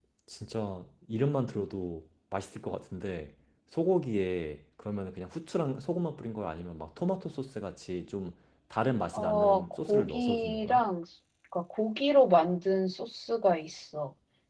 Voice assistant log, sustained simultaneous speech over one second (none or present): present